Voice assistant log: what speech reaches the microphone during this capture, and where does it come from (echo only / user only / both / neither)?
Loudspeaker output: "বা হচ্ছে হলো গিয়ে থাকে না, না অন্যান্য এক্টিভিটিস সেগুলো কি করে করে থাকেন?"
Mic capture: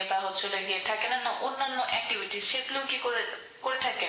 echo only